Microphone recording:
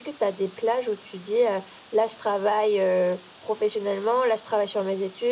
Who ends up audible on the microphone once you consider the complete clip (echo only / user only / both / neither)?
echo only